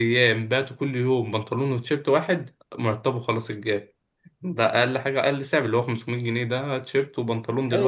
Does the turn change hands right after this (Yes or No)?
Yes